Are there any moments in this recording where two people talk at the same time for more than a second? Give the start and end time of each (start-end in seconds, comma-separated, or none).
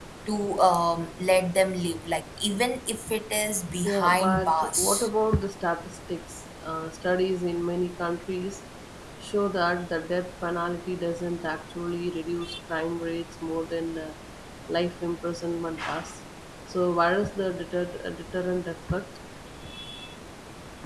3.9-5.1